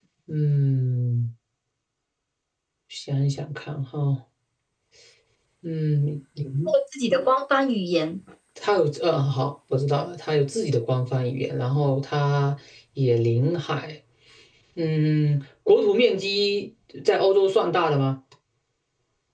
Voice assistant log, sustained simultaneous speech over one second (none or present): none